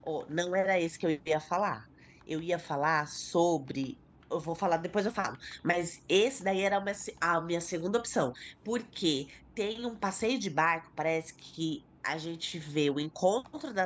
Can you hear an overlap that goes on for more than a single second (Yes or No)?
No